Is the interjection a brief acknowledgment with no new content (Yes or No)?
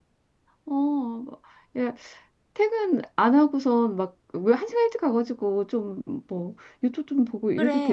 No